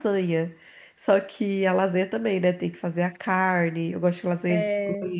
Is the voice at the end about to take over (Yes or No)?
No